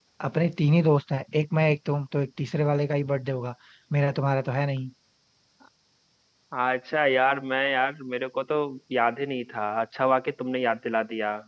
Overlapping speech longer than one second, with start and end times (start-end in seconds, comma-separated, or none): none